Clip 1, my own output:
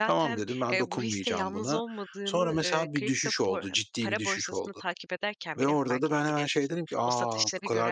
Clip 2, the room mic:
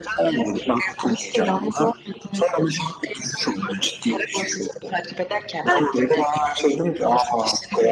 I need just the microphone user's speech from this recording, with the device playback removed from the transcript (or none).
belki de.